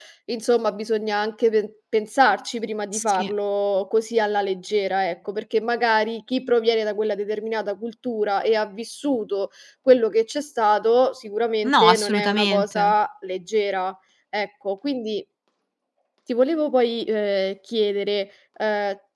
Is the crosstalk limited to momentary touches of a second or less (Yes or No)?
No